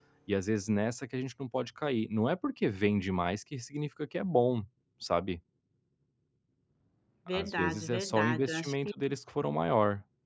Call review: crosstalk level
present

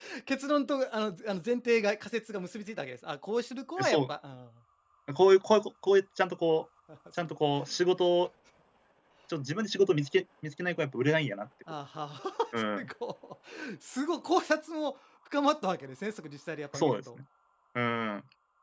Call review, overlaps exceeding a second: none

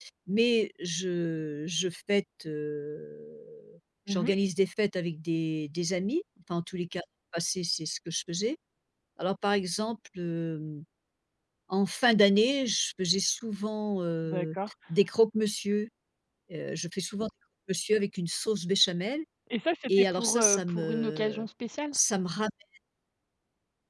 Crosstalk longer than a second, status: present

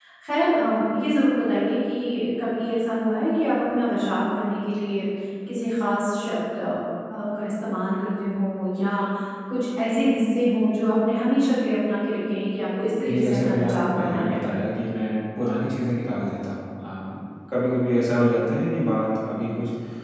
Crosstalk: present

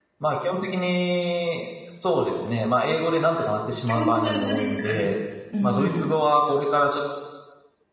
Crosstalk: present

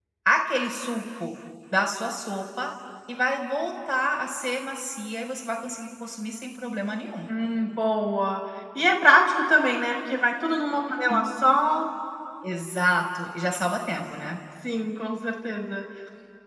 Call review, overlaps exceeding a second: none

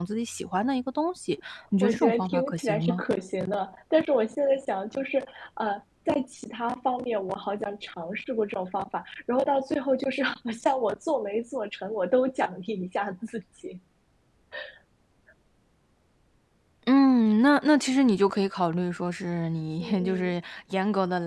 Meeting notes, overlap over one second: present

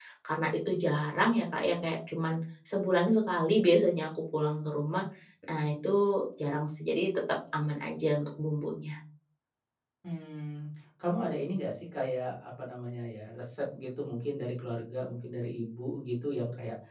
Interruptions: none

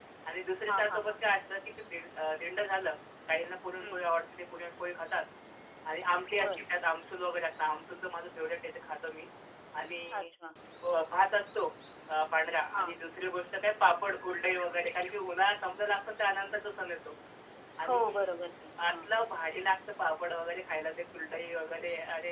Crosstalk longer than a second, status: none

